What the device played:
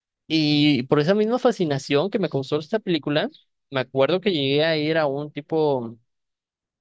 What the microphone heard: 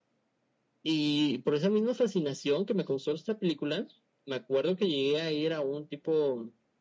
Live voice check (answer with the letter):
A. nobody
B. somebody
A